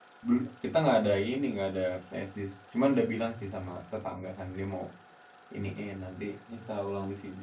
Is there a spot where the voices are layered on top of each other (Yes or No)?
No